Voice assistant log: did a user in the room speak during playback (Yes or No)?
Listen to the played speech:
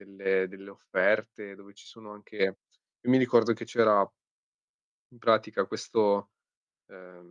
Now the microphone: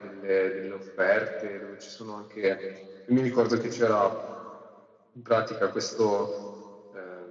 No